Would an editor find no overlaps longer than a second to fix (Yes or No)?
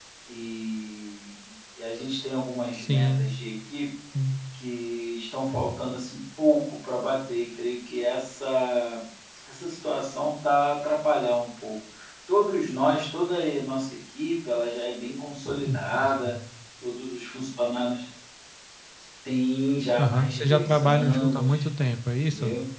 No